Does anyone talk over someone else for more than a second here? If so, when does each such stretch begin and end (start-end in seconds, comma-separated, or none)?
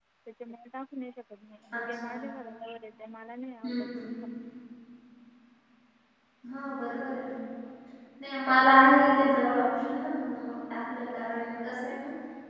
none